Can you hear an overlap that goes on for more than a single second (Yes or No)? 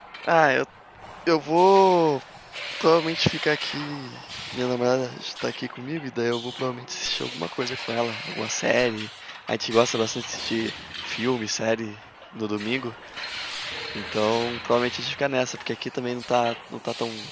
No